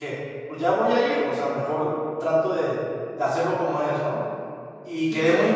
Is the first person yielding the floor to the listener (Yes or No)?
No